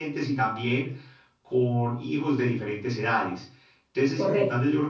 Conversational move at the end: listening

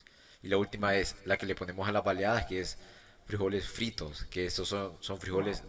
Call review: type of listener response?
listening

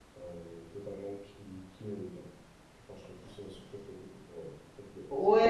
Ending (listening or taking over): taking over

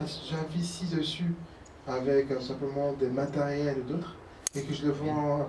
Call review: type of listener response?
listening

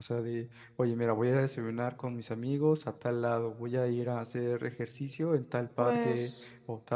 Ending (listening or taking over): listening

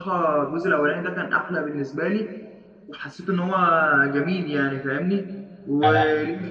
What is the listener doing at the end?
listening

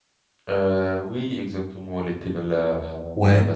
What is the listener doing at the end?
taking over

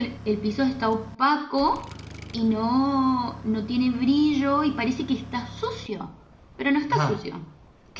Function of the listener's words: taking over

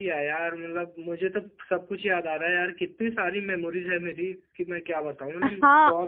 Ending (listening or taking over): taking over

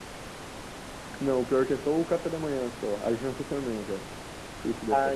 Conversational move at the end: taking over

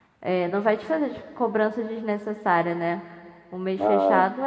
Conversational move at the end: listening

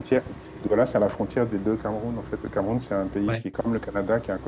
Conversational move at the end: listening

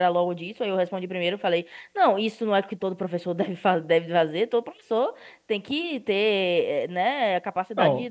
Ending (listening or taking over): taking over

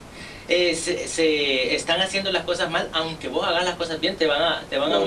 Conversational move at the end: taking over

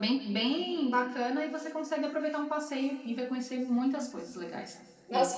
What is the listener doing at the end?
taking over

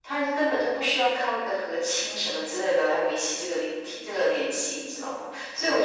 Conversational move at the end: listening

